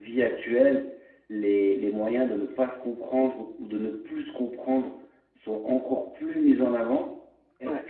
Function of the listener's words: listening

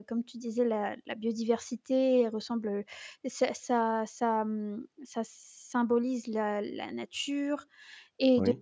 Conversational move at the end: listening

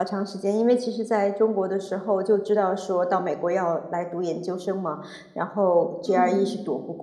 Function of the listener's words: listening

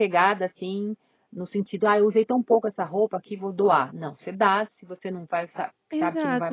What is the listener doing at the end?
taking over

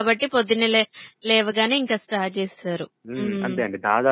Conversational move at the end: taking over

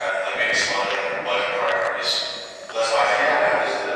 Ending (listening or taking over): taking over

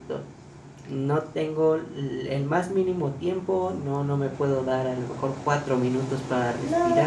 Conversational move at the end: taking over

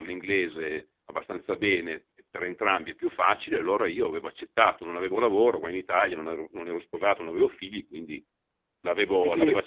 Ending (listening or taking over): listening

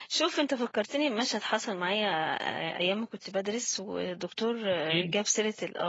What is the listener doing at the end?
listening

